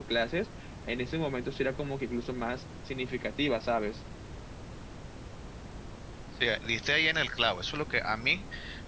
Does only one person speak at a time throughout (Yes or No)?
Yes